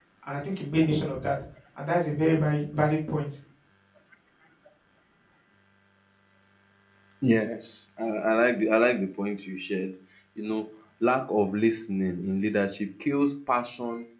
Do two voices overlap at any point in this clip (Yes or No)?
No